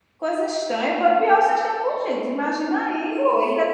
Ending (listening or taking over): listening